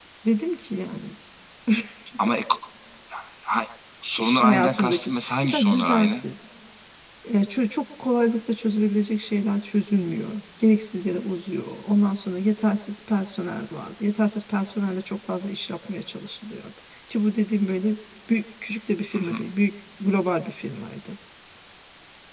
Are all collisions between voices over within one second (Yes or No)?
No